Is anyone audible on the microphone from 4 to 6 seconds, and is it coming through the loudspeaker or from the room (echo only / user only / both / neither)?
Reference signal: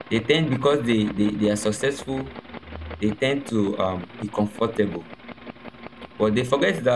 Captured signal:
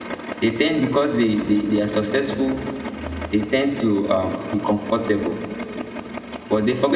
echo only